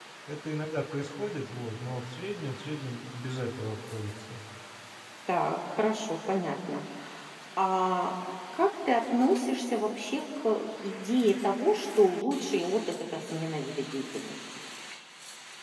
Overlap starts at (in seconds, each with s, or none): none